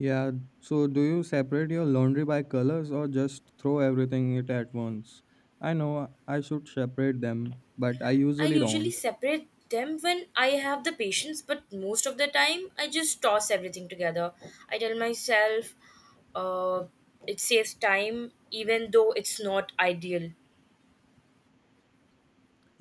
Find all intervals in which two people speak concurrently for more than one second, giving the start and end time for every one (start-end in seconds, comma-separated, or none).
none